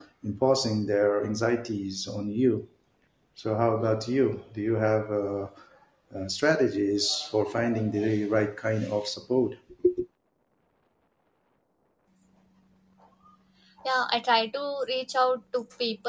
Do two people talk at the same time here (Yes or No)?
No